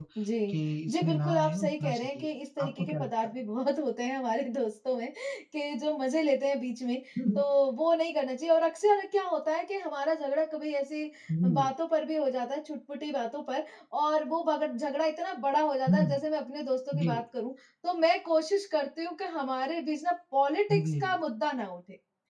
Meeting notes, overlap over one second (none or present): present